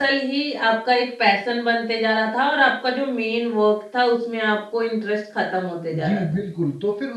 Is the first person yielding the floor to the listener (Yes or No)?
Yes